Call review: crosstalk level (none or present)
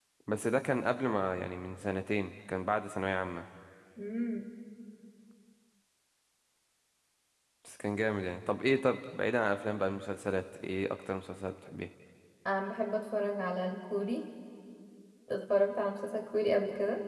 none